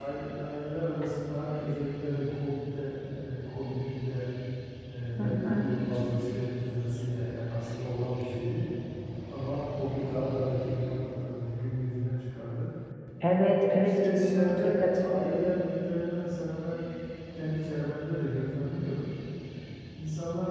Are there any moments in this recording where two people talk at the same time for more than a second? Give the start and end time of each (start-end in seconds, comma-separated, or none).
13.7-15.4